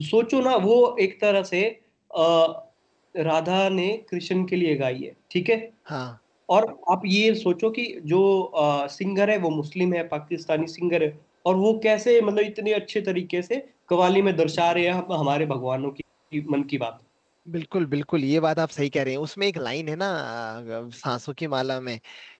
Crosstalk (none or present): none